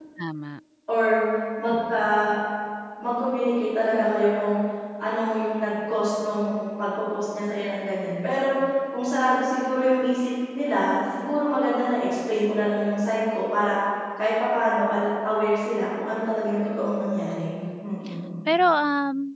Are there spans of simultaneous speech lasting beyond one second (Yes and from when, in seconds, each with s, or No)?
No